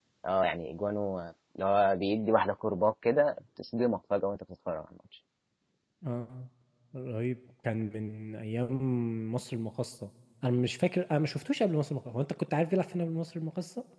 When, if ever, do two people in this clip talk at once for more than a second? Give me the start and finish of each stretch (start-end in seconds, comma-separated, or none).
none